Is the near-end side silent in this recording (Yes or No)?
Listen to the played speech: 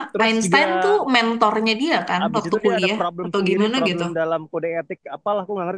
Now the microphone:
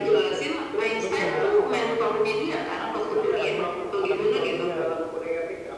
No